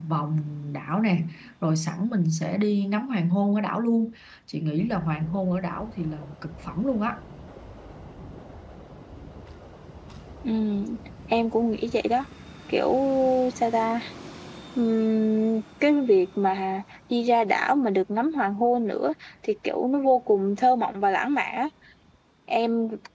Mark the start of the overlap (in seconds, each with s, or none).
none